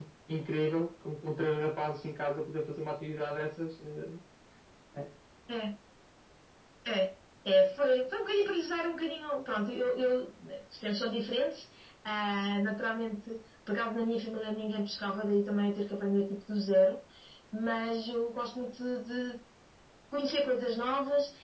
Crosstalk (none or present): none